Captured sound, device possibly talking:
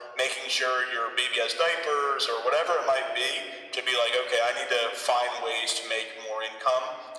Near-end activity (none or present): none